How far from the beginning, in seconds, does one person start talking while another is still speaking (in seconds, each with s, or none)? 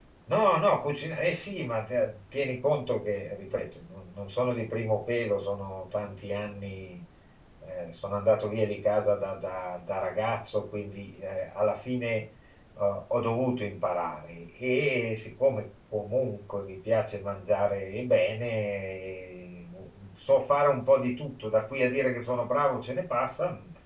none